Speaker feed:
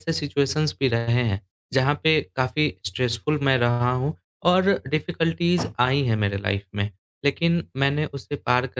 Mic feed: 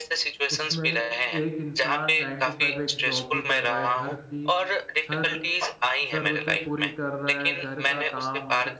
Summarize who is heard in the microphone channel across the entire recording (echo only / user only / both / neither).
both